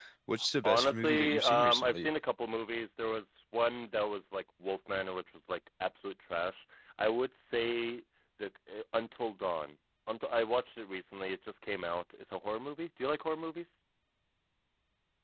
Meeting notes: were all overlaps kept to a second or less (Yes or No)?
No